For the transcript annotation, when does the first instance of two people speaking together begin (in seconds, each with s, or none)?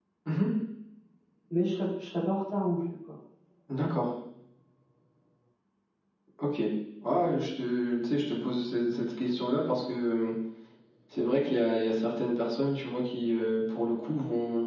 none